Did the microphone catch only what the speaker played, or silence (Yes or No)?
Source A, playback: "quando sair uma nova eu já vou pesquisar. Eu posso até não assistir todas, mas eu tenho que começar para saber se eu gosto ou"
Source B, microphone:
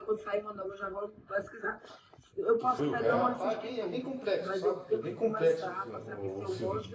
No